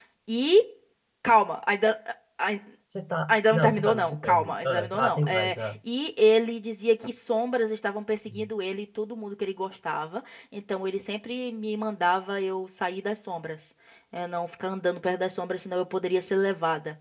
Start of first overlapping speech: 3.3 s

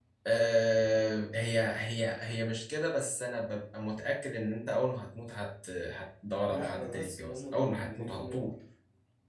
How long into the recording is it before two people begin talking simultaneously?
6.5 s

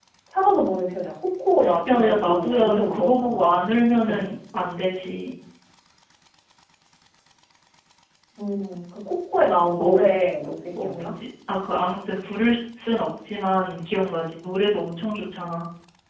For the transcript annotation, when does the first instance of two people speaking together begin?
1.9 s

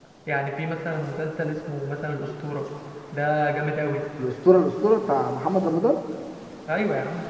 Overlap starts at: none

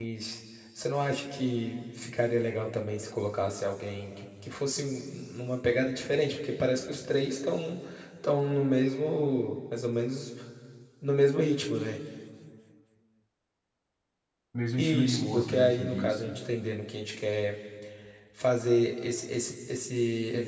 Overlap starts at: 14.8 s

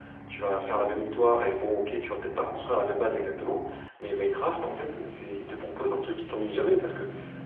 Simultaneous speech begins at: none

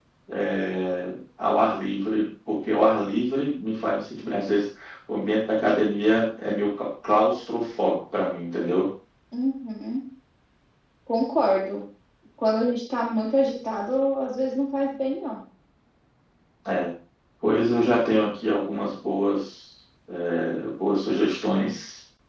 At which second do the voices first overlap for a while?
none

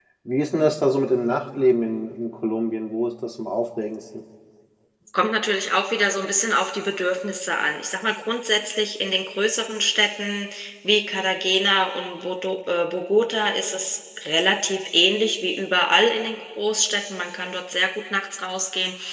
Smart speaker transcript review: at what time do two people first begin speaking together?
none

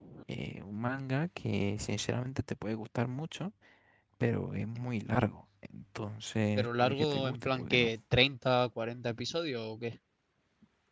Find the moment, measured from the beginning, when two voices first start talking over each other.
6.6 s

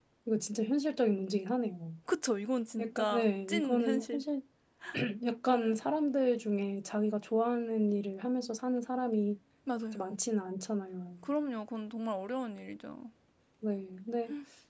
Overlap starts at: 2.8 s

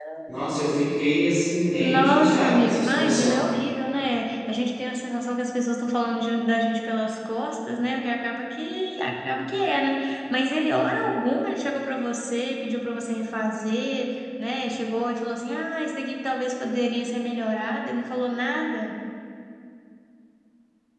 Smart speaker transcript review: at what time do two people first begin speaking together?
1.8 s

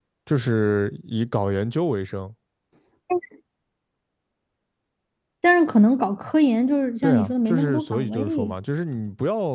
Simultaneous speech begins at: 7.0 s

